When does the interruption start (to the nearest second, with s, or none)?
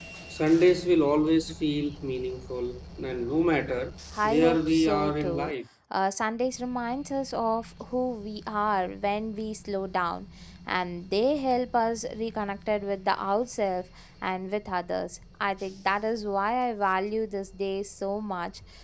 4 s